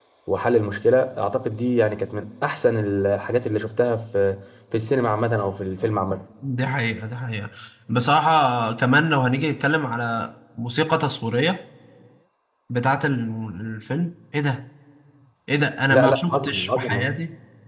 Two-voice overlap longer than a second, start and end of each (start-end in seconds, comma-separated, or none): 15.9-17.1